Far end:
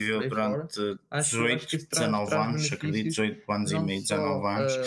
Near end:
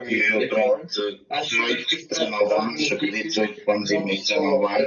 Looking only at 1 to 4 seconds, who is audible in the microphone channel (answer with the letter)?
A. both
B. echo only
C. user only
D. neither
B